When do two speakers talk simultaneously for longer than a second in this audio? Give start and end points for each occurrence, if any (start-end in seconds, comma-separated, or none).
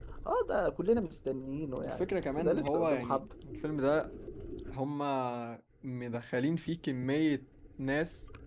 2.0-3.2